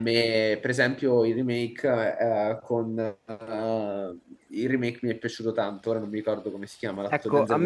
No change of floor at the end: No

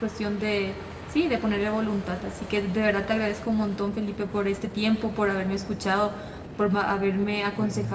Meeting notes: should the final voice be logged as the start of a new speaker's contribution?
No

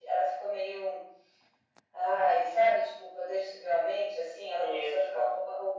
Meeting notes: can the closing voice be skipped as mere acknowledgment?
Yes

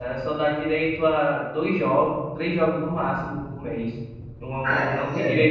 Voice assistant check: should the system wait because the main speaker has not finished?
Yes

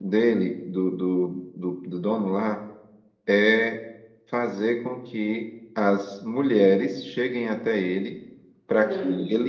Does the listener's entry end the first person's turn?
No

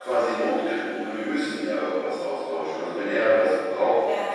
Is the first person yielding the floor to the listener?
No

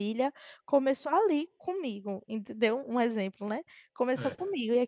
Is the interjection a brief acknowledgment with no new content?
Yes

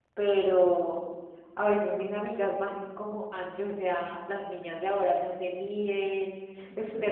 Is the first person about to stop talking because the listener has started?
No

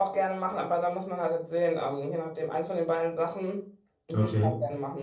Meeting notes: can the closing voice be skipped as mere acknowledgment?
No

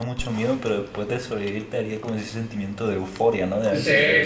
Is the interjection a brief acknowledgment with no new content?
No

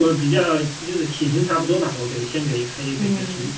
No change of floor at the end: No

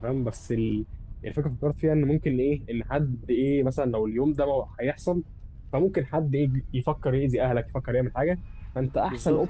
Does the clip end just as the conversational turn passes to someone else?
Yes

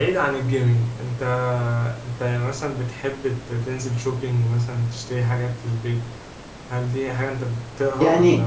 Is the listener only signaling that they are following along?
No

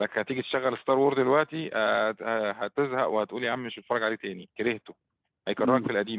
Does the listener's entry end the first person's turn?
Yes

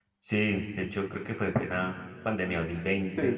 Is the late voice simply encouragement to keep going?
No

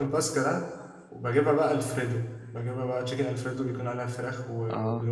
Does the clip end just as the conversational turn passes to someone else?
No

